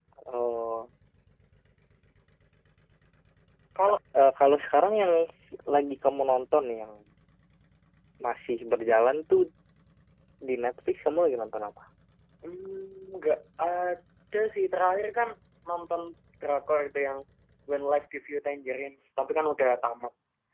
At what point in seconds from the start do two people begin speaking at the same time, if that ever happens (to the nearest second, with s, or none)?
none